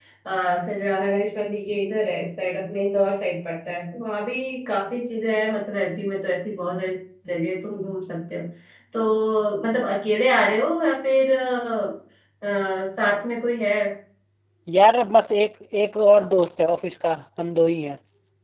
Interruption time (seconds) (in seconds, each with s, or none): none